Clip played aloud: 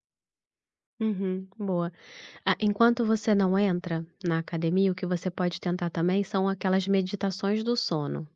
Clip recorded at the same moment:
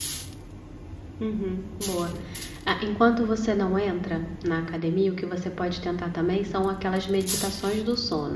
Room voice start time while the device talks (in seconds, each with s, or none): none